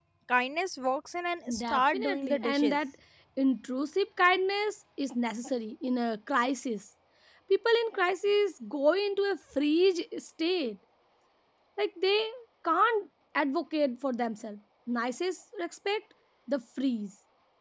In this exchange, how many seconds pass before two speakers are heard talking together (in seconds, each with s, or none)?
1.5 s